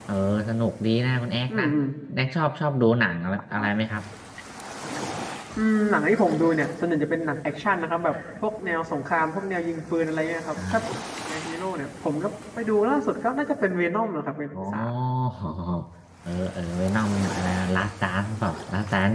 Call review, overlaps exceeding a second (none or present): none